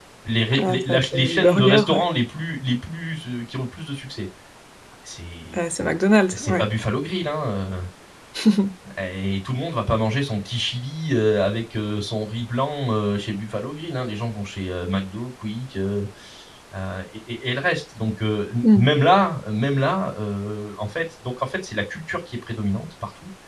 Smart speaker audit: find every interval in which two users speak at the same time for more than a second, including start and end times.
0.6-2.0

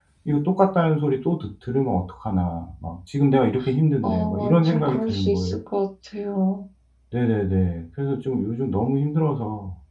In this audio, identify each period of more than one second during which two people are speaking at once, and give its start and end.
4.0-5.5

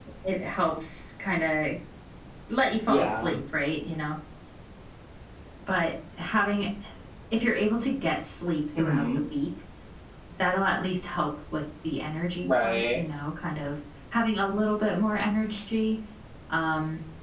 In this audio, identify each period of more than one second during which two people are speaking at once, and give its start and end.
none

